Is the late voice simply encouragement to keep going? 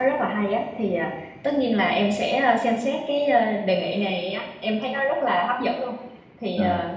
Yes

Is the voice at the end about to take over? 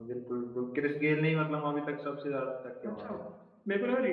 Yes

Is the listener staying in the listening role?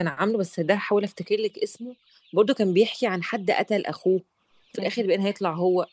Yes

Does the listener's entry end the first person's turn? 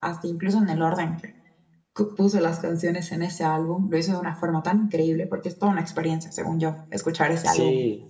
Yes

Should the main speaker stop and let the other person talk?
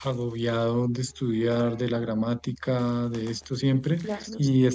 No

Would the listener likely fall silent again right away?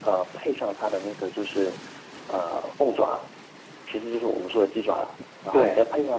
Yes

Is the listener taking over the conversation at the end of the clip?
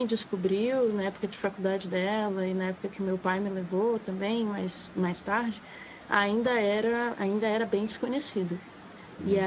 Yes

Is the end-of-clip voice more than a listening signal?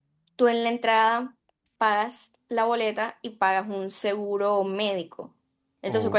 No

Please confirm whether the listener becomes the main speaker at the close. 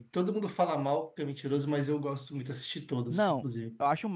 Yes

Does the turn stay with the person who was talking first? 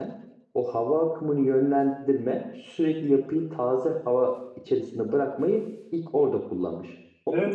No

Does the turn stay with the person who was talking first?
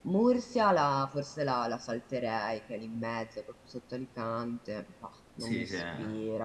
No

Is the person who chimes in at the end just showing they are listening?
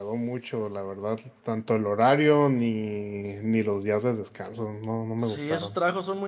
No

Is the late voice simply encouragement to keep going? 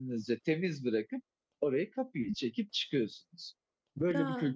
No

